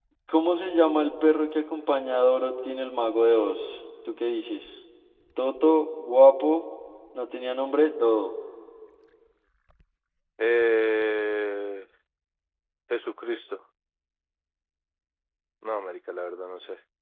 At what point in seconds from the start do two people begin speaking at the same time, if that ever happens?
none

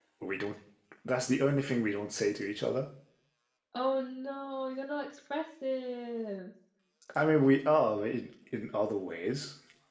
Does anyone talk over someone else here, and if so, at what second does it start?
none

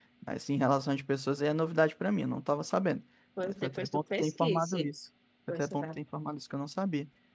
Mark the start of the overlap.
3.4 s

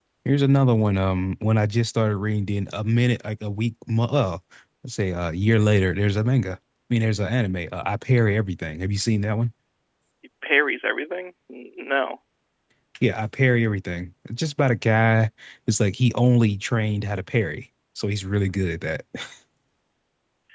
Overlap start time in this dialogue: none

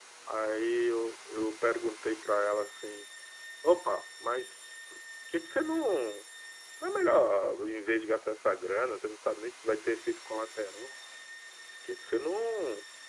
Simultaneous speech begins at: none

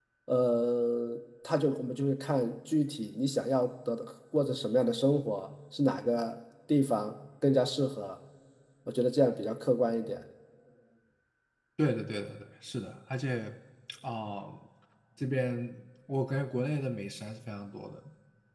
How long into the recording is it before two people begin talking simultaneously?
none

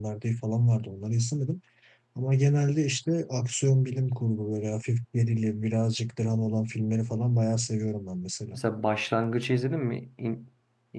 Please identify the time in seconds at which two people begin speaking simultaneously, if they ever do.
none

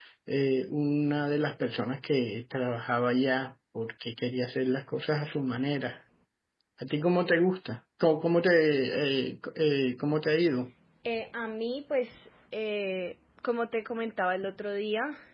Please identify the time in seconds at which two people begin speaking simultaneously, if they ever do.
none

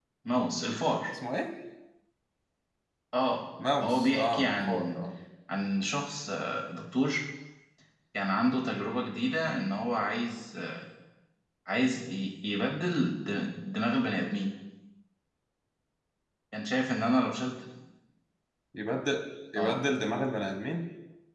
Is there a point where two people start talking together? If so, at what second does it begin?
3.8 s

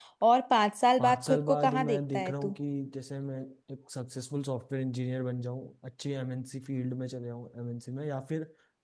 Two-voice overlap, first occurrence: 1.0 s

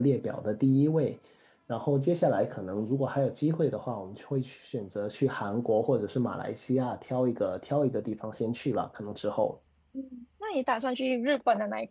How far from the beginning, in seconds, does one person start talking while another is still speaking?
none

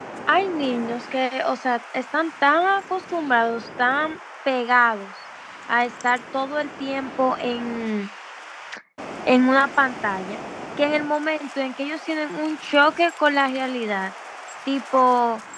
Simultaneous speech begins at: none

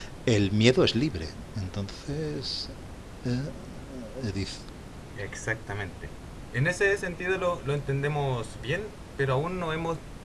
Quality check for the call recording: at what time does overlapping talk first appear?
none

